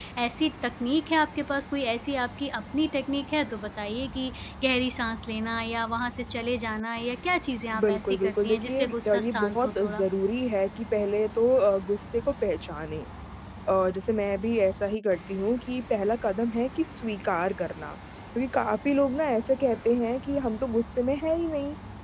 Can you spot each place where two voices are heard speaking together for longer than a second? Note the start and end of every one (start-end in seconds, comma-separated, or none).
7.8-10.1